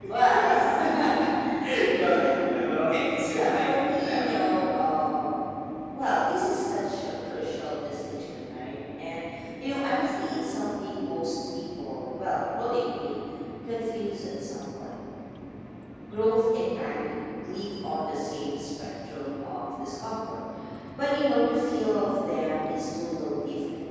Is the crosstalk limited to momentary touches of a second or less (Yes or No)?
No